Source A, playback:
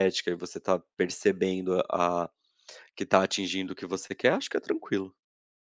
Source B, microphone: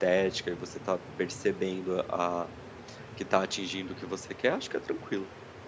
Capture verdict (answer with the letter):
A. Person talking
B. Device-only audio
B